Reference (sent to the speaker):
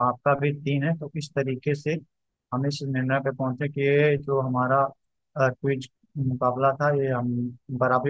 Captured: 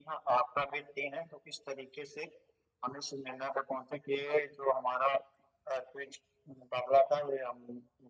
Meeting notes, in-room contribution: none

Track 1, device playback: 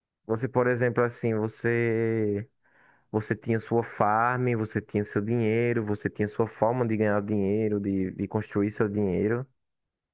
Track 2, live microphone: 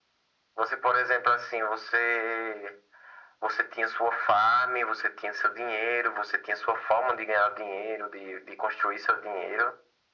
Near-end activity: none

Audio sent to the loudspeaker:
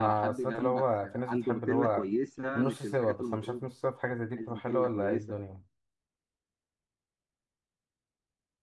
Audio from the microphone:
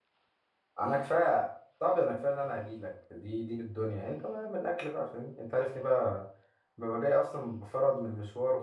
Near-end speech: present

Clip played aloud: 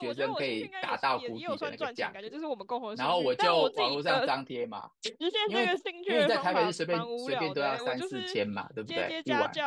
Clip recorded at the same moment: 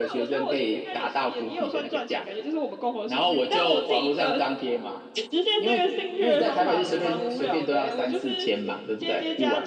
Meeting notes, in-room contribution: none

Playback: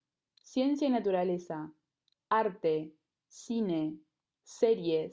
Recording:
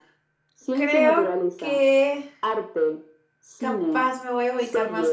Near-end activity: present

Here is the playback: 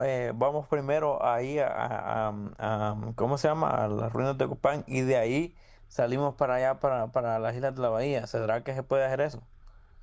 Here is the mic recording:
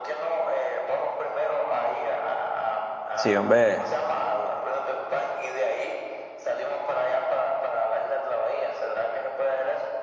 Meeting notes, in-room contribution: present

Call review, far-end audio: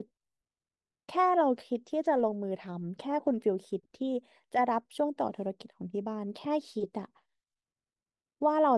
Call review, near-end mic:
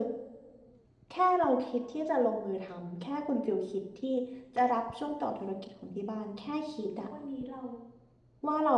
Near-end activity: present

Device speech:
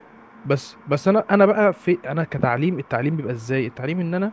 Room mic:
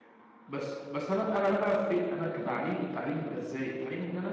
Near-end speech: none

